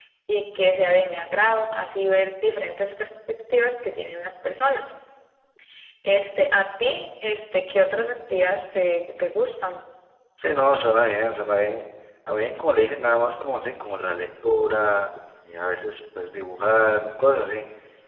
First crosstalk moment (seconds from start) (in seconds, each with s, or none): none